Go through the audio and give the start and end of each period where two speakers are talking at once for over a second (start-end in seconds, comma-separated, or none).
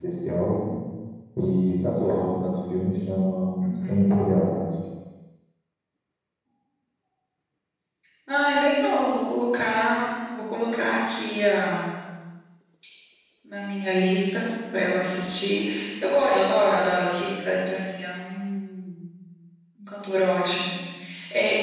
none